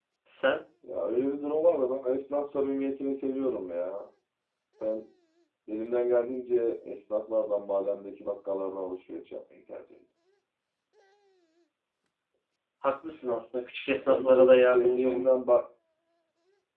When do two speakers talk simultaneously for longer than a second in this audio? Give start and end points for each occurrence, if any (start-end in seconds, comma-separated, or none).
13.9-15.3